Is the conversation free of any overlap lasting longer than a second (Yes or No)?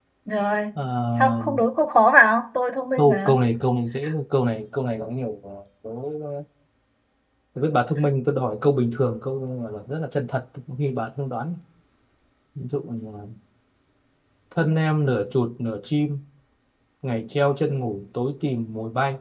Yes